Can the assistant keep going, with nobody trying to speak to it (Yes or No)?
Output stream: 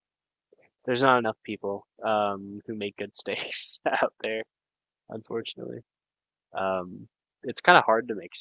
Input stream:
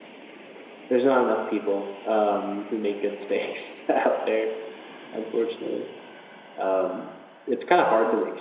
Yes